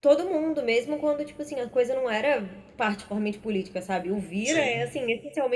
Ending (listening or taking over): listening